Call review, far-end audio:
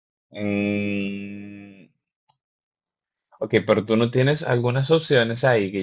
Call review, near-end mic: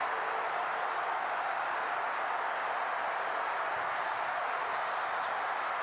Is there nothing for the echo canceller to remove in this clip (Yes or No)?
Yes